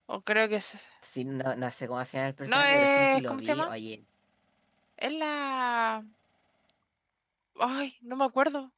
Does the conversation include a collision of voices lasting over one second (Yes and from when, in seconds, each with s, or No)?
Yes, from 2.5 s